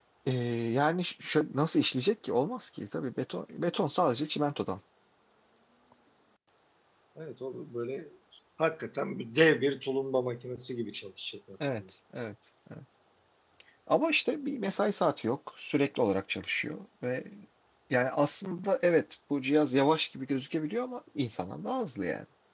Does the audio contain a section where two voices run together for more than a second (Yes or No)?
No